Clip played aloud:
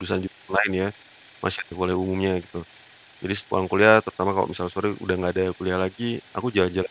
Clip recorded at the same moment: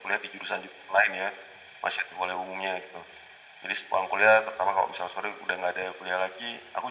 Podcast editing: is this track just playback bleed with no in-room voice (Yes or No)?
Yes